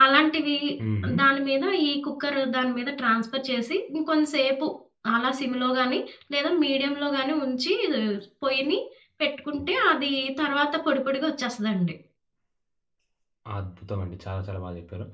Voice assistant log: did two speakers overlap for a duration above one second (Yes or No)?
No